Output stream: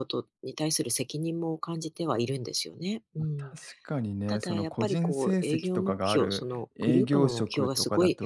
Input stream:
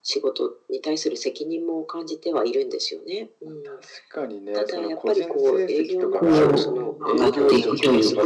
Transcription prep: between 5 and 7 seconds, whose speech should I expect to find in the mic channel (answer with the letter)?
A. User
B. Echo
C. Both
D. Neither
C